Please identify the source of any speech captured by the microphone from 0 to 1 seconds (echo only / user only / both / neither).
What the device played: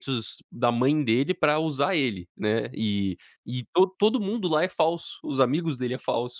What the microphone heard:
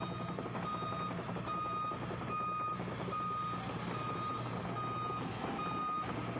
neither